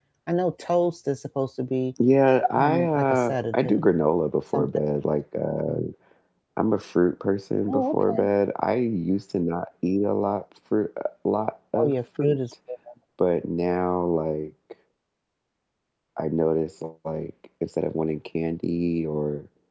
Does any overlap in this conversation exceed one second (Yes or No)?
Yes